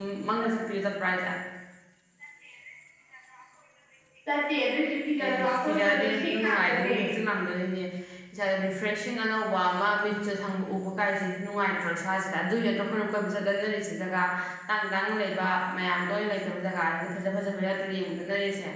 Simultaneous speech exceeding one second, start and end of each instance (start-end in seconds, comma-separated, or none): 5.2-6.9